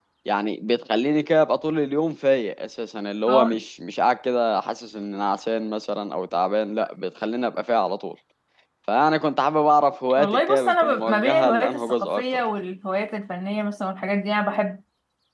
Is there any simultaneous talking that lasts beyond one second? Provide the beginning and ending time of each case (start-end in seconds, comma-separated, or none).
10.2-12.5